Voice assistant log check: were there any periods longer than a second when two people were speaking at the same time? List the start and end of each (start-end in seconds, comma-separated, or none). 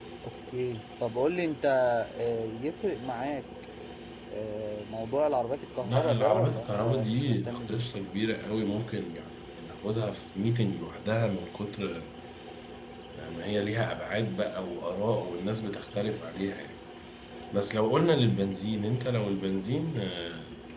5.8-7.8